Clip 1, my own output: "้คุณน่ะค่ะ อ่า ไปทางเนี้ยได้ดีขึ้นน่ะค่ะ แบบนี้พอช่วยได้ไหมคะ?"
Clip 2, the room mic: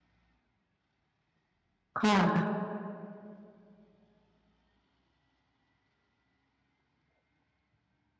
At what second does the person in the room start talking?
2.0 s

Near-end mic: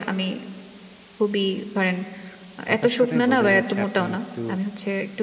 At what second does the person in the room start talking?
2.7 s

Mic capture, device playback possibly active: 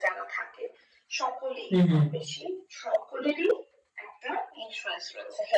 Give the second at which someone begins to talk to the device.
1.7 s

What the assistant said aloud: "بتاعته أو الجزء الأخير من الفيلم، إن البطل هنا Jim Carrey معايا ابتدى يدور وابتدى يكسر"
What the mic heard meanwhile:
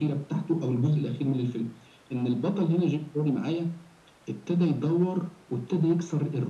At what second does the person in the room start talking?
none

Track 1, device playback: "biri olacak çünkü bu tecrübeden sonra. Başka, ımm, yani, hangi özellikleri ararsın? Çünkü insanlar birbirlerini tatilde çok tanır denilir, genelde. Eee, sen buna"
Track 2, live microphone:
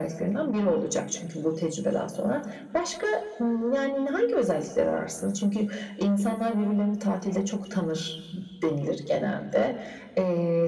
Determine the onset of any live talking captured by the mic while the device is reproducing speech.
none

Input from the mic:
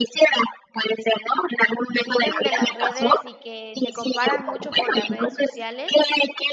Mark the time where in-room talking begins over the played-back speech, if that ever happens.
1.9 s

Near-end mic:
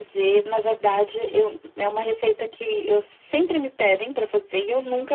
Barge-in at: none

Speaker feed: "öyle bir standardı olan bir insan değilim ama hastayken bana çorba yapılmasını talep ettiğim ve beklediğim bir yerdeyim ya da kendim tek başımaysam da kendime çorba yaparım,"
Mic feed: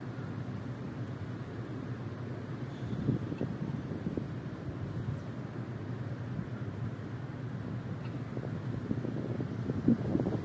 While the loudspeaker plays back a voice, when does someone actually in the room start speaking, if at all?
none

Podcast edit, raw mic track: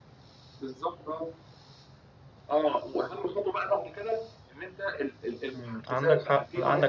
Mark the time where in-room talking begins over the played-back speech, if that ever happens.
5.5 s

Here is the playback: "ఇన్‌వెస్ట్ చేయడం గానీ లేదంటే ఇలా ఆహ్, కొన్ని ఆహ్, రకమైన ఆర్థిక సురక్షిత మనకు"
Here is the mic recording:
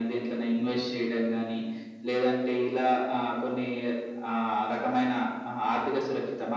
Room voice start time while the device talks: none

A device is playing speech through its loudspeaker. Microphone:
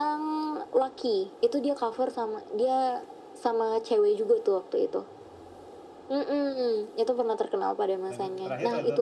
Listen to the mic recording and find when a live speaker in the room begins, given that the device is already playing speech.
8.1 s

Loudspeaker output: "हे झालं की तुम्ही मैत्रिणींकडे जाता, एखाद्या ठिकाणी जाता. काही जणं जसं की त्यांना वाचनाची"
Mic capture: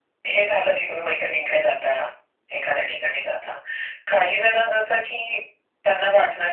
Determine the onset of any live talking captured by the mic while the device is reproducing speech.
none

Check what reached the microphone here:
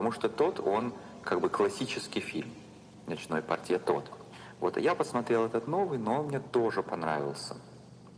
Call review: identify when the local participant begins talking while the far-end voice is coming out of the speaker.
none

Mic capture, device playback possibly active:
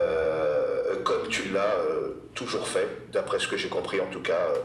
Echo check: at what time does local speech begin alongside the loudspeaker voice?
none

